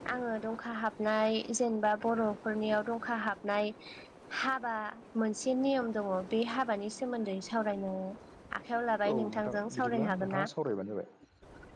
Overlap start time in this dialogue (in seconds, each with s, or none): 9.1 s